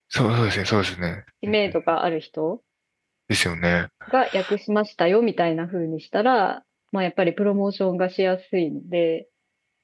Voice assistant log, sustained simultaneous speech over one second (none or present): none